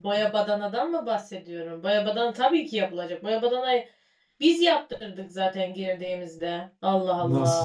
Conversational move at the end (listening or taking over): taking over